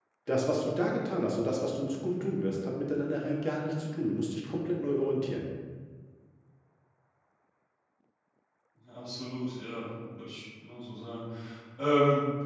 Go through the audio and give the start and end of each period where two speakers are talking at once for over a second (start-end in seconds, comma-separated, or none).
none